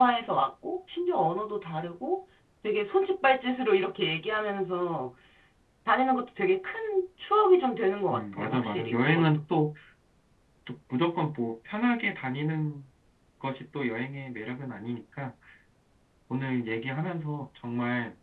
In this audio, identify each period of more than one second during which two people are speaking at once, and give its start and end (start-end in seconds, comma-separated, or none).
8.1-9.4